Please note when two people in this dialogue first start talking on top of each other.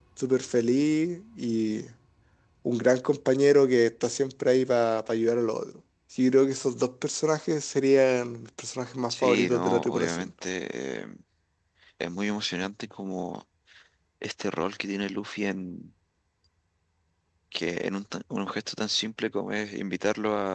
9.1 s

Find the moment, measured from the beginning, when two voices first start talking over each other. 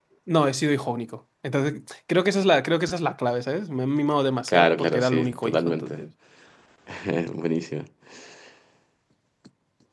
4.5 s

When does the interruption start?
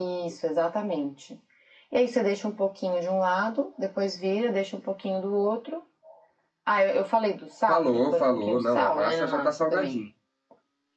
7.7 s

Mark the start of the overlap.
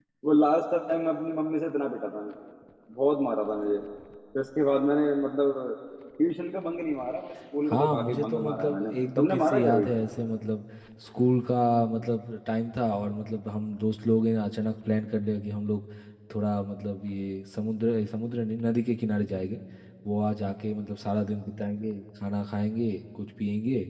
7.7 s

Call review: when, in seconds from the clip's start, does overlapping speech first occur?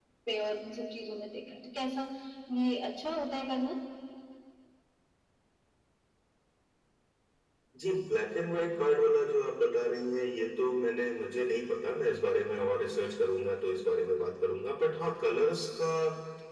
none

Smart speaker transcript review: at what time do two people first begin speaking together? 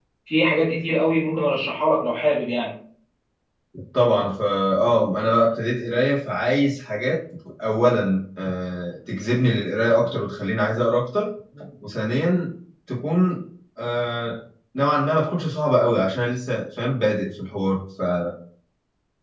none

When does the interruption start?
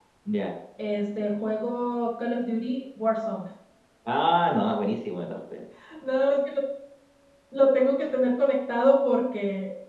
none

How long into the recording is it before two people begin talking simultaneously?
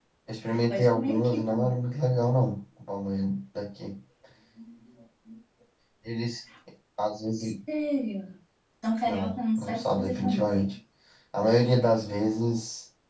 0.5 s

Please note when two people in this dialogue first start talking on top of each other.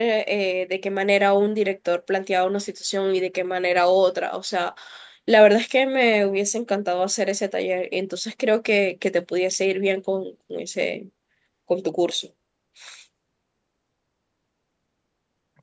none

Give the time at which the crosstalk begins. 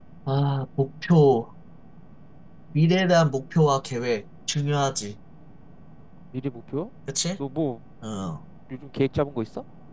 none

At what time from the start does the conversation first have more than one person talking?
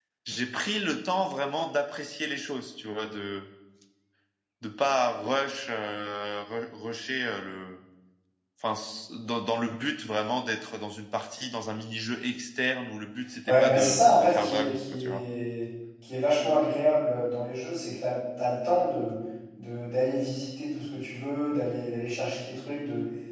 13.5 s

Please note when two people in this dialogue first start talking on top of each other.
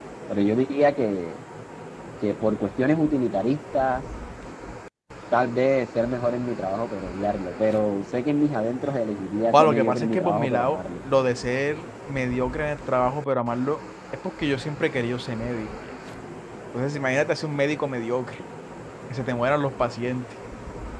9.5 s

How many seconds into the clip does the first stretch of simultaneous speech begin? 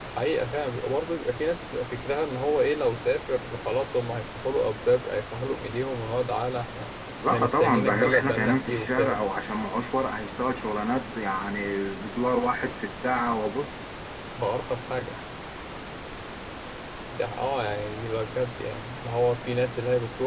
7.2 s

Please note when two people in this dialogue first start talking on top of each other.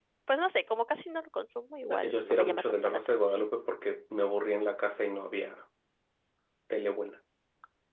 1.9 s

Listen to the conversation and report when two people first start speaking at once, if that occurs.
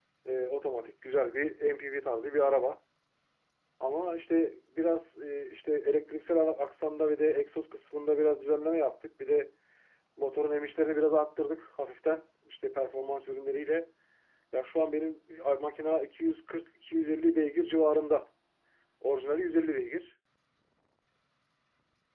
none

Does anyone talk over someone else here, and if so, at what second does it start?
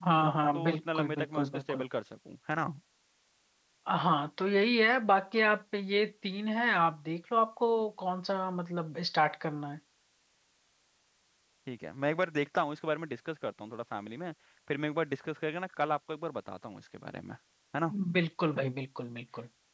0.5 s

